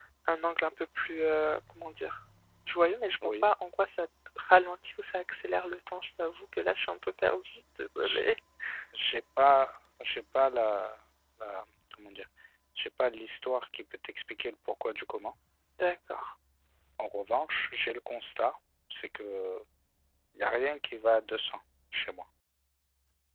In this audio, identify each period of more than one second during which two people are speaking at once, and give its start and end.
none

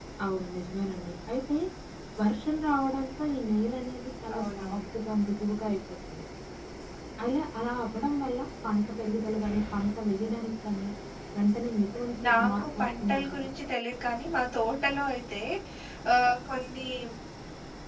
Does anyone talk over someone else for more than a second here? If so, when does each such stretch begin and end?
12.3-13.5

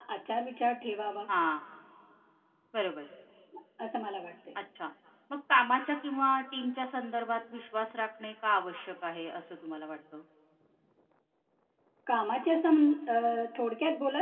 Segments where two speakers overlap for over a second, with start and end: none

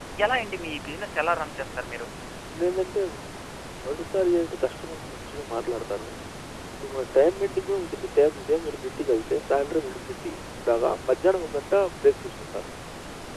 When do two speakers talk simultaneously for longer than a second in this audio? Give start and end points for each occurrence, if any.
none

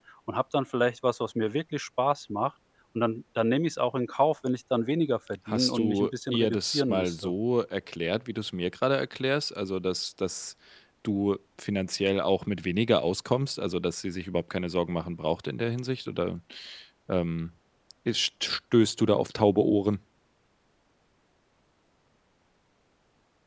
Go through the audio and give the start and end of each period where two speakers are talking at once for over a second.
5.5-7.3

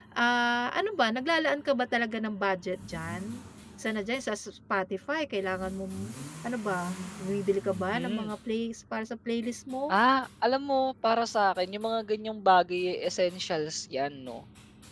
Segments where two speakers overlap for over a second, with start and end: none

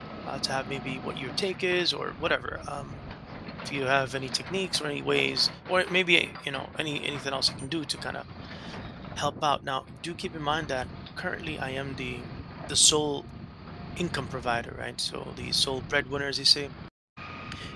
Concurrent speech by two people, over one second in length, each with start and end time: none

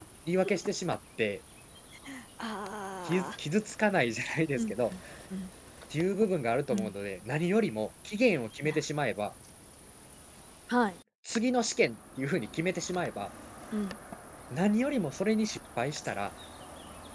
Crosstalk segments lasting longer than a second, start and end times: none

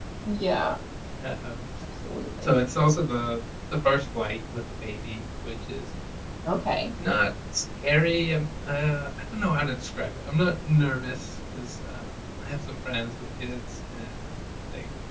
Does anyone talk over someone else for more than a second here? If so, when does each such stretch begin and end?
none

